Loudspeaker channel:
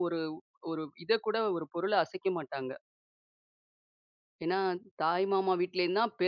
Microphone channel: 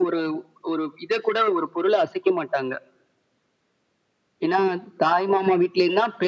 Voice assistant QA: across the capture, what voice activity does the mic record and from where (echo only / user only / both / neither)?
echo only